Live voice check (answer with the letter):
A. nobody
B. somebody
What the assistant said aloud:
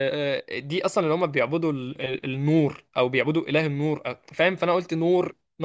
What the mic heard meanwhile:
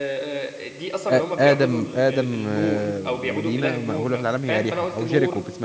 B